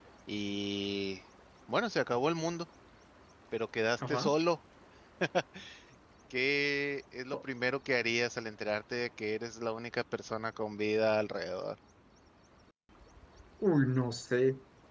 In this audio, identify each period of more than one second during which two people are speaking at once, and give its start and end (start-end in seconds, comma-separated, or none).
none